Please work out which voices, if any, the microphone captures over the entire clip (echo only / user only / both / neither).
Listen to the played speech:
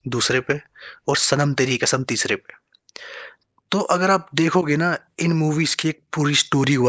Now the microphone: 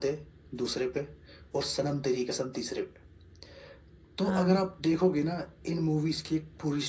both